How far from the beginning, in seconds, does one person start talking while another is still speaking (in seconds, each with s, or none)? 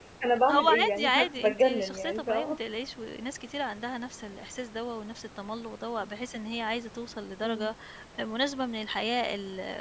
0.5 s